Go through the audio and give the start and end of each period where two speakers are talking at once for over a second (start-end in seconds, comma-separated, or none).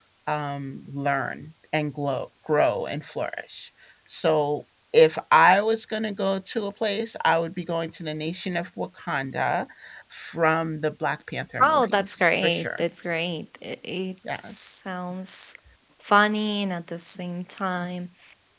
11.6-12.8